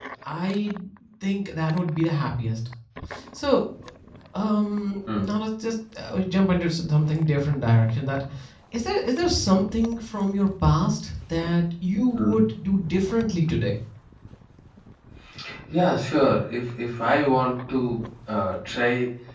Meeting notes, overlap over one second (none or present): none